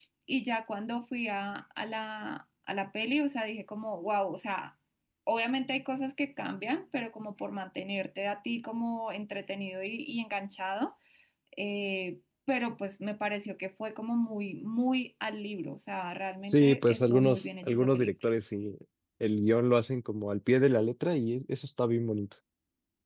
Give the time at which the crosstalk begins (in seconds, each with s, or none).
16.5 s